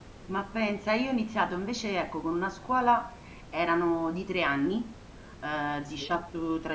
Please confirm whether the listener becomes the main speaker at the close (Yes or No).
No